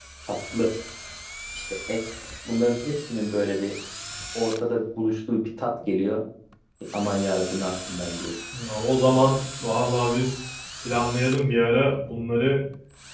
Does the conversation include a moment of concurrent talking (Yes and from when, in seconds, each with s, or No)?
No